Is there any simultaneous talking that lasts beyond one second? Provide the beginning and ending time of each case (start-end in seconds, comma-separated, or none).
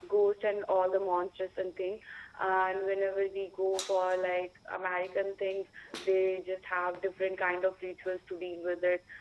none